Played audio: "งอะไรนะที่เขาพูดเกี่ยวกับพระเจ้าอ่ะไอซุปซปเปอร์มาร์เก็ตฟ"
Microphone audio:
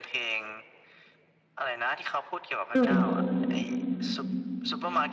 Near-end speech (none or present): present